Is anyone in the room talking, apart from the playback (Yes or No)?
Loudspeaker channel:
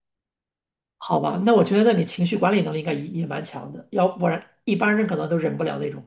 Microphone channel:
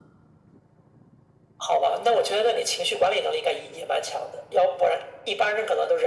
No